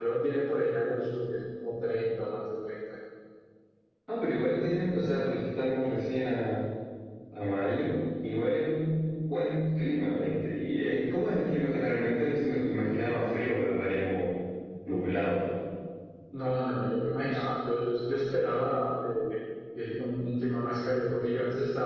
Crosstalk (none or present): none